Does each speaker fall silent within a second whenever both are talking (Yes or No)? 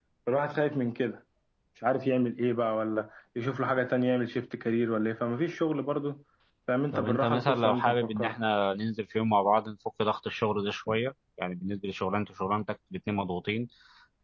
No